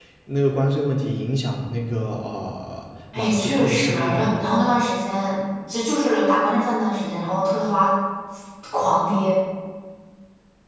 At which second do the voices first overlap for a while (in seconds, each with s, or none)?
3.1 s